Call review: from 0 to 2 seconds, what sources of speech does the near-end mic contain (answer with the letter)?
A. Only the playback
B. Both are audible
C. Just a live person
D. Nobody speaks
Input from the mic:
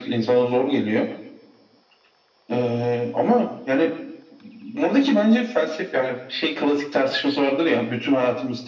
A